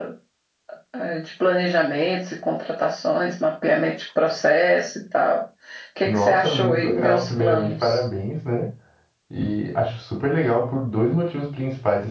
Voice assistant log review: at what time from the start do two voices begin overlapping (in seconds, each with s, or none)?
6.0 s